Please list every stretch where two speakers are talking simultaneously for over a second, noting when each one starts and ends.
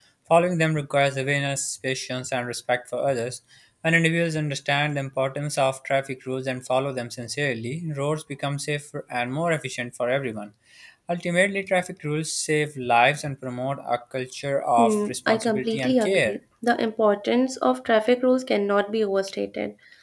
14.8-16.4

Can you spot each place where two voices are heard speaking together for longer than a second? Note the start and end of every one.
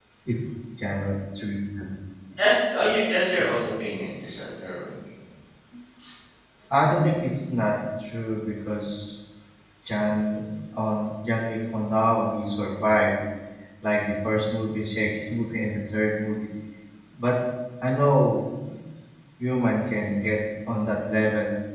none

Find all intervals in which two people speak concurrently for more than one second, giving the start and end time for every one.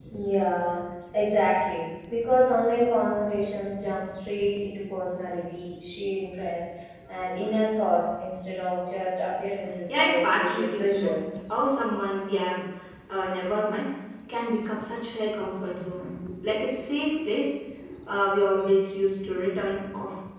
9.9-11.1

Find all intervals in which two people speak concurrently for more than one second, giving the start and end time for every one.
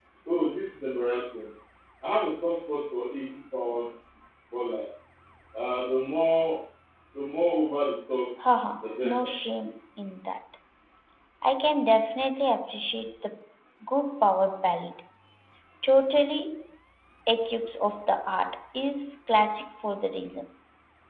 none

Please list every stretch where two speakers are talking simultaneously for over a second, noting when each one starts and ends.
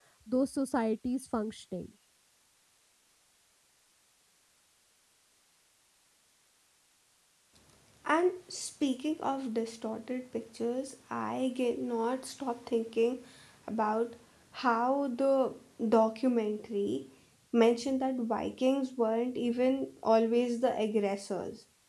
none

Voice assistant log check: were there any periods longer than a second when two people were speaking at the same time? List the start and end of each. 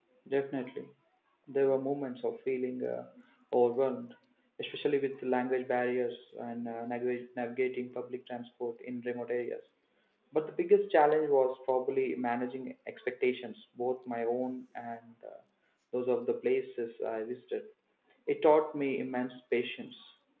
none

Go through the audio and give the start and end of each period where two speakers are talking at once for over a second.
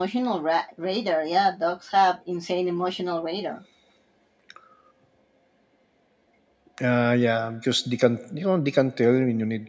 none

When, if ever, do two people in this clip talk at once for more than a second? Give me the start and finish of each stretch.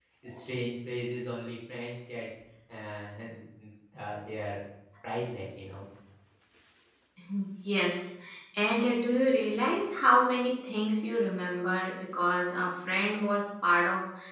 none

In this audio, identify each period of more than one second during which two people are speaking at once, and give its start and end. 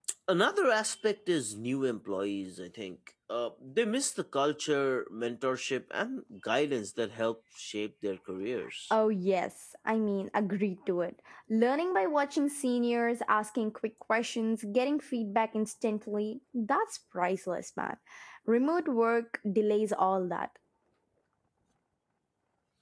none

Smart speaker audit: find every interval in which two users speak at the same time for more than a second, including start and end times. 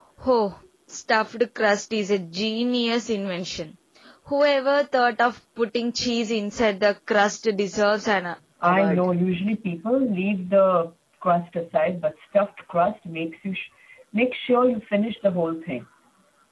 none

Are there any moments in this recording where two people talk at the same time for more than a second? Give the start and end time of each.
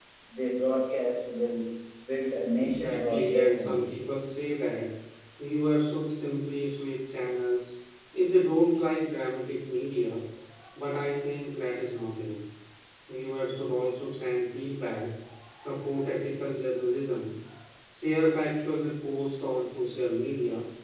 2.6-4.0

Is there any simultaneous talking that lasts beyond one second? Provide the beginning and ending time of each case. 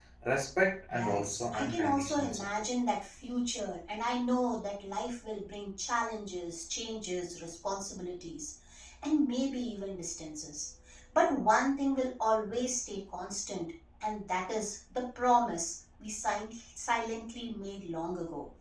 0.9-2.4

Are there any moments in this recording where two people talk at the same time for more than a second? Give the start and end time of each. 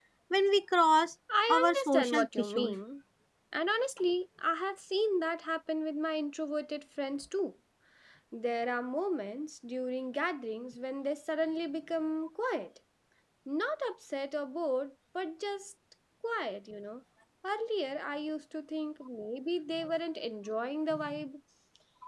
1.5-2.8

